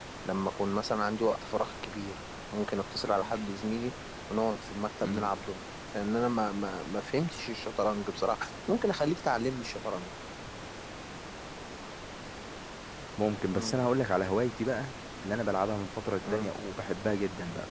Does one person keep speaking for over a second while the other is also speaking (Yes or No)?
No